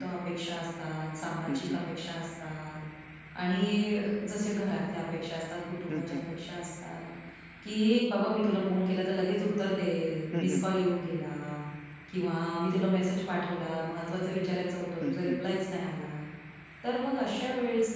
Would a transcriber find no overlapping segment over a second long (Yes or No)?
Yes